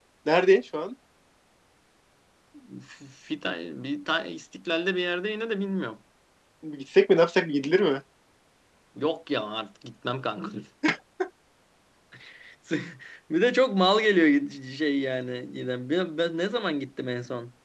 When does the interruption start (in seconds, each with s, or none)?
none